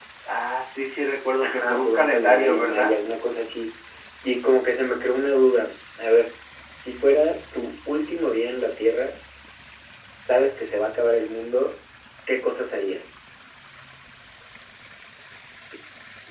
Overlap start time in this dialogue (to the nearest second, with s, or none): 1 s